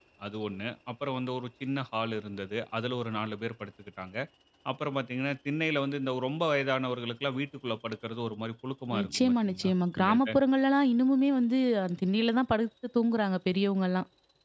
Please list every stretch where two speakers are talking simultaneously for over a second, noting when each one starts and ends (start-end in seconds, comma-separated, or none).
9.0-10.3